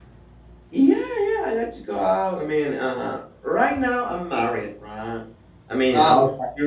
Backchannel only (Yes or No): Yes